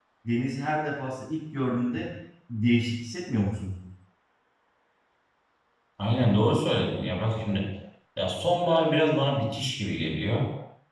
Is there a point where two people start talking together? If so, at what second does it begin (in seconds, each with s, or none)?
none